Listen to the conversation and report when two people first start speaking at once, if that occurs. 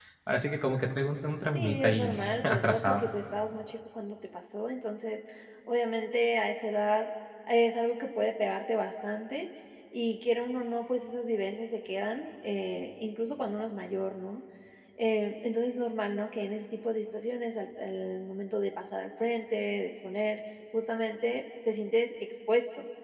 2 s

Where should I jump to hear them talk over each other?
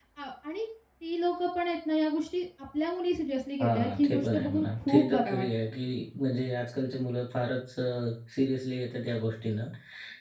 4 s

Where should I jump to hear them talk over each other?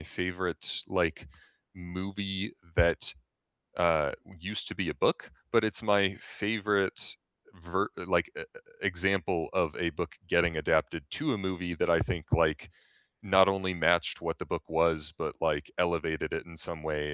none

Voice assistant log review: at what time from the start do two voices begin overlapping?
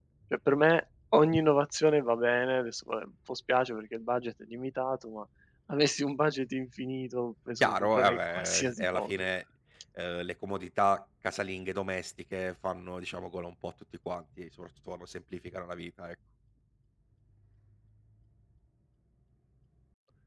8 s

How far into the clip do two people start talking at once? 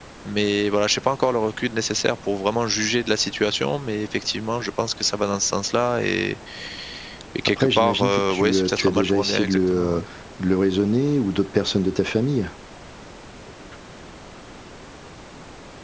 7 s

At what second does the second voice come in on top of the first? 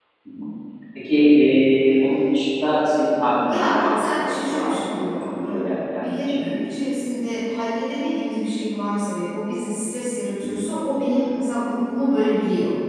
3 s

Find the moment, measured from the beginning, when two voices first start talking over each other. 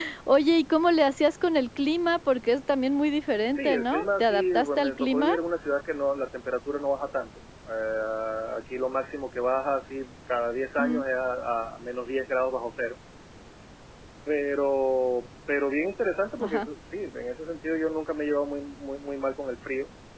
4 s

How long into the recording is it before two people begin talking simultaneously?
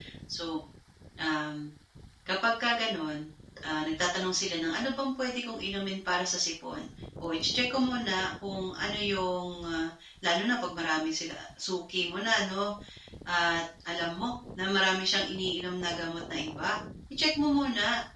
none

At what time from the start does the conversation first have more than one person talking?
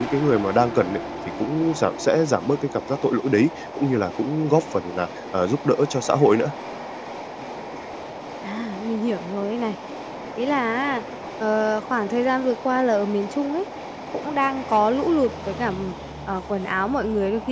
none

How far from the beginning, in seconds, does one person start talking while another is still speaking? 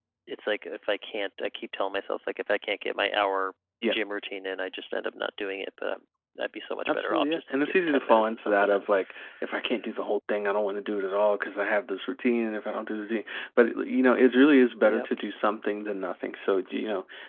7 s

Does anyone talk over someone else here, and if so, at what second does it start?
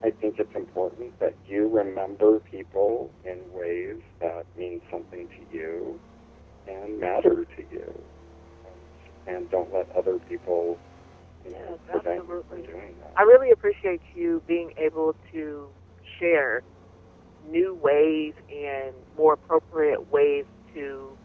11 s

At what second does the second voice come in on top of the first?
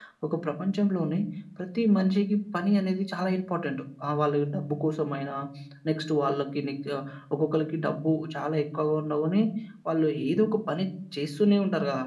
none

